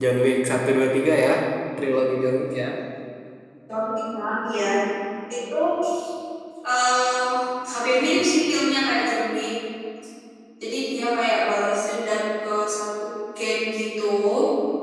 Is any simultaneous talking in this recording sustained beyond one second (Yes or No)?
No